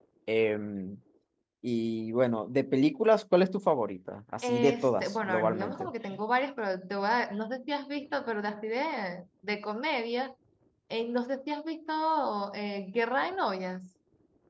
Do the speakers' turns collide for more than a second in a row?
Yes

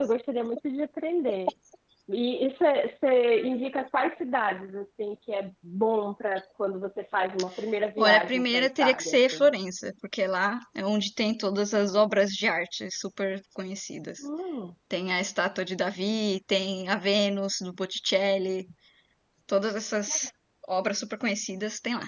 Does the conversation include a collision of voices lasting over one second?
Yes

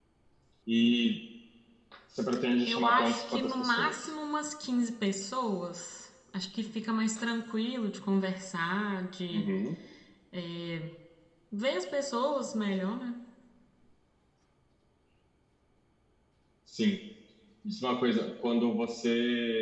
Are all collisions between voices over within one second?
No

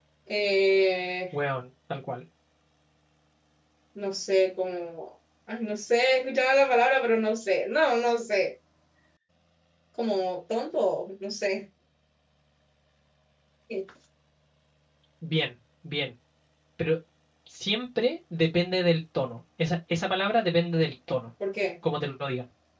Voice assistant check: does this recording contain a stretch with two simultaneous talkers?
No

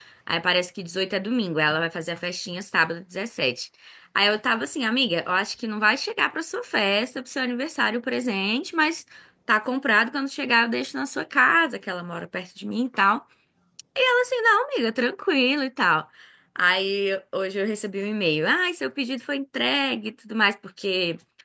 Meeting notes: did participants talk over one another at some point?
No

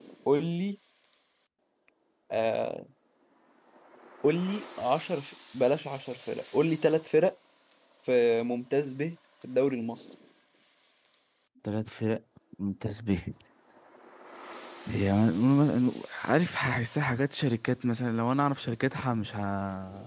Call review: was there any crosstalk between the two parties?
No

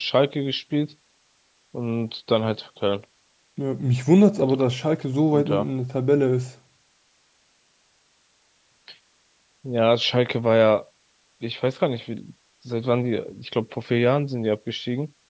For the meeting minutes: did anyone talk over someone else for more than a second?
No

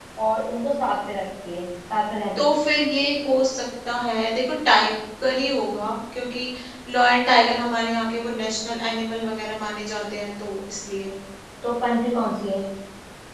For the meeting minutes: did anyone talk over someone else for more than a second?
No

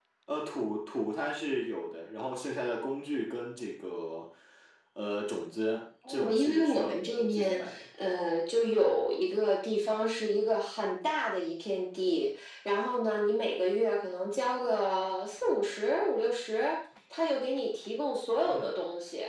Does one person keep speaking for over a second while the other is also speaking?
Yes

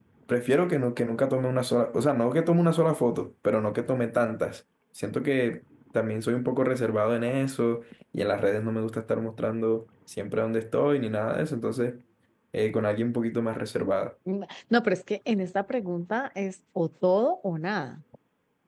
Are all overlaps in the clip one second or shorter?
Yes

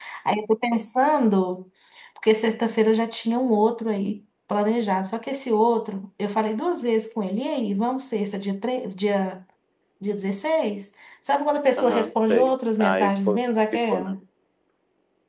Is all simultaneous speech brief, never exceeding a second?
No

